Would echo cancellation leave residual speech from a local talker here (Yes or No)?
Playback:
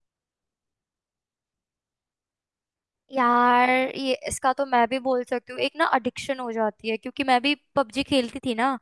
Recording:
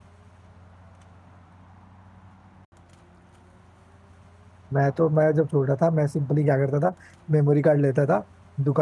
Yes